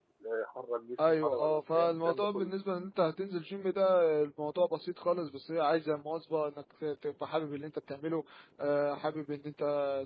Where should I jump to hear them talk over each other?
1.0 s

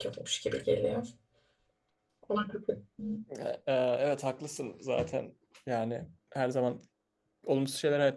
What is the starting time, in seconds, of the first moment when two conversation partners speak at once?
none

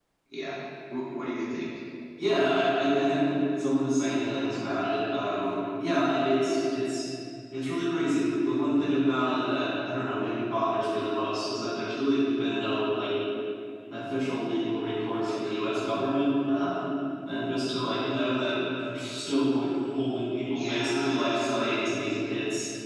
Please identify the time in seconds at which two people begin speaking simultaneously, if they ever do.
20.5 s

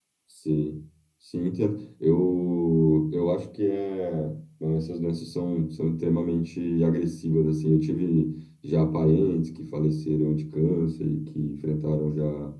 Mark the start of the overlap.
none

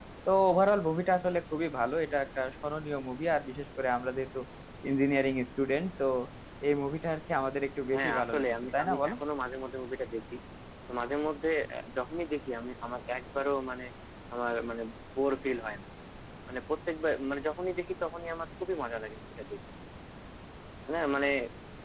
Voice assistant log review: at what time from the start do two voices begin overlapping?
7.9 s

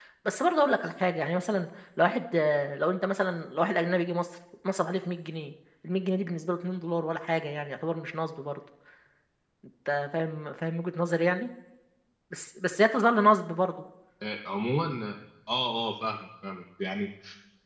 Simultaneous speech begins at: none

